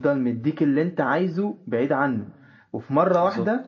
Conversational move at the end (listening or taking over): listening